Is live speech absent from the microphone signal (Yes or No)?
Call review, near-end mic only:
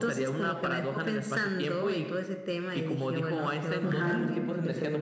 No